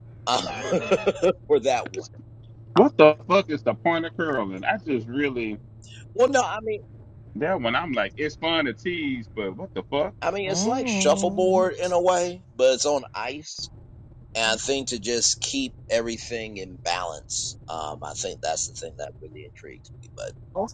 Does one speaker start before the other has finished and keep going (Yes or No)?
Yes